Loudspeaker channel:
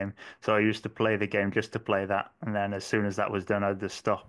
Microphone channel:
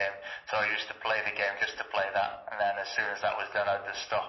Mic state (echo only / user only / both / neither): echo only